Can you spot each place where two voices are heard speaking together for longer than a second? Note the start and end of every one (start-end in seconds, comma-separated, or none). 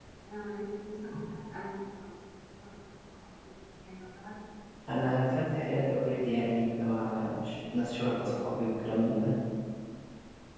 none